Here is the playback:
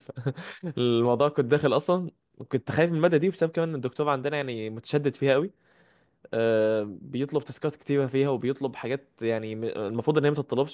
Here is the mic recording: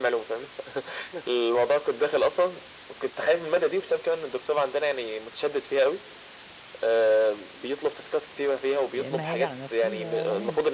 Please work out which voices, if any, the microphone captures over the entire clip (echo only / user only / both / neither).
both